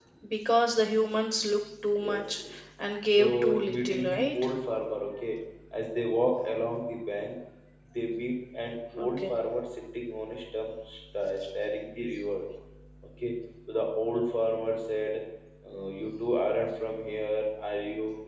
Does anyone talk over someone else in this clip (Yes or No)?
Yes